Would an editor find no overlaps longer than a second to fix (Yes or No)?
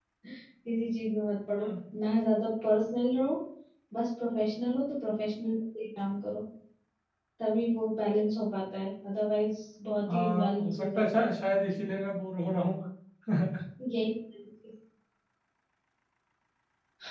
No